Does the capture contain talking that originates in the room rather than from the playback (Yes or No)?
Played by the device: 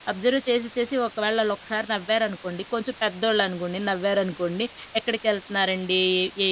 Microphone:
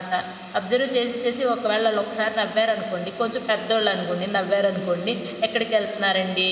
No